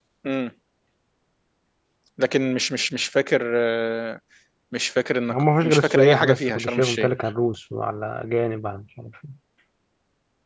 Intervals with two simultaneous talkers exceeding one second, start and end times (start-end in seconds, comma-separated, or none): 5.3-7.1